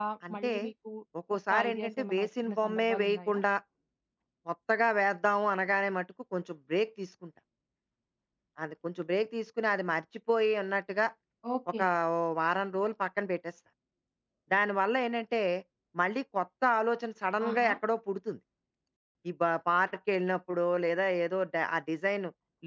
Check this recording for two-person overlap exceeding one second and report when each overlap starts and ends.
1.5-3.4

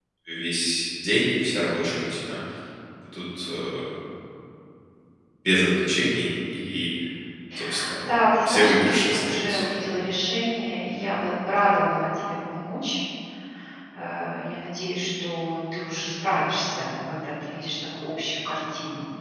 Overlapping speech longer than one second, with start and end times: 8.4-9.7

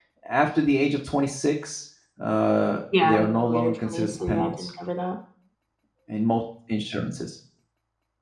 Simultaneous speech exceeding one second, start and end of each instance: 2.9-4.7

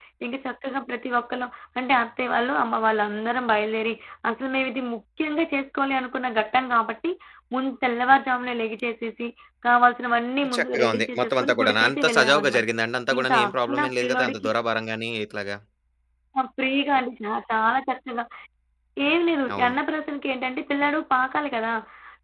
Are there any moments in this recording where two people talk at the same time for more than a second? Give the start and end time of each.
10.6-12.7, 13.2-14.5

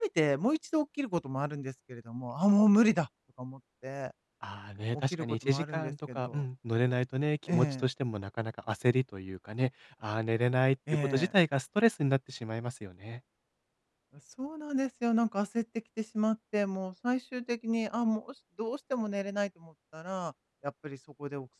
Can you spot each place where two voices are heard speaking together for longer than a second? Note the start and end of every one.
4.9-6.4

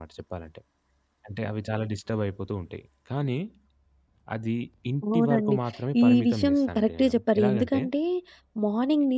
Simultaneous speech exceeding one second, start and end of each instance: 6.0-7.8

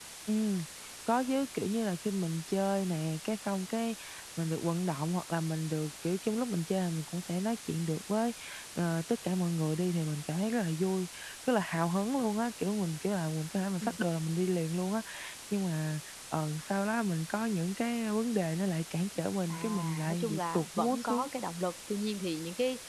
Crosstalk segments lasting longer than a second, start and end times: 19.5-21.3

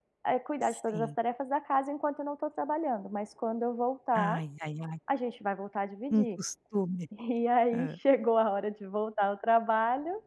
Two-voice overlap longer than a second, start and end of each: none

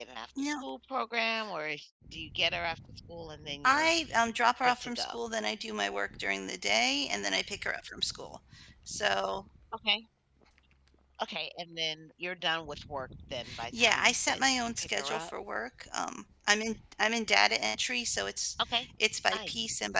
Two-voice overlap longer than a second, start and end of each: 13.7-15.3

